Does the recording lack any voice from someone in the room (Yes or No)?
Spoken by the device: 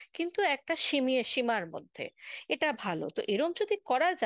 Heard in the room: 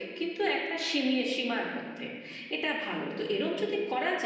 Yes